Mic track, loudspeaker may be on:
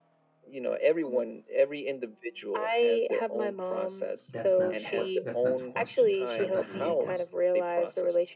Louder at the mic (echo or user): echo